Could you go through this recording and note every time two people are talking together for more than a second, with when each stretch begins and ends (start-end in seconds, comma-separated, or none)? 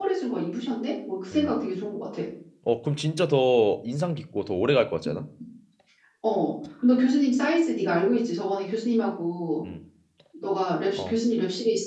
none